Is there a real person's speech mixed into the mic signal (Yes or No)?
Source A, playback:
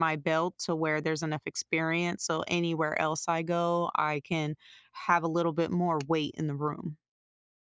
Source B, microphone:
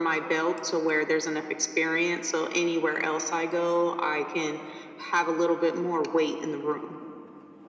No